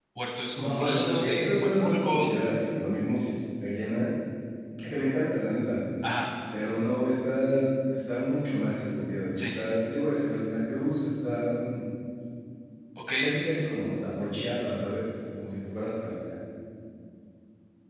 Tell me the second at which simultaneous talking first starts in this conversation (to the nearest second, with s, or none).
1 s